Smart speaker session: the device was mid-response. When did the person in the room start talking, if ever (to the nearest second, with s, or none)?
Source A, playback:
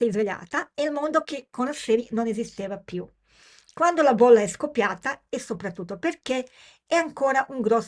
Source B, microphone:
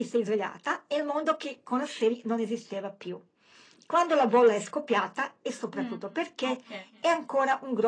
6 s